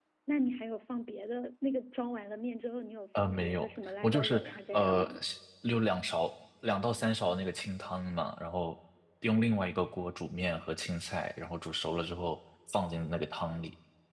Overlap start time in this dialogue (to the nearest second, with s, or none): 3 s